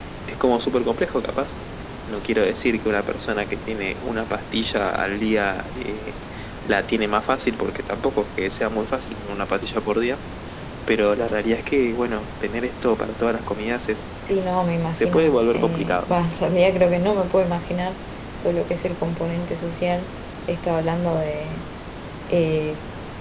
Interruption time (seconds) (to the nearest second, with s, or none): 14 s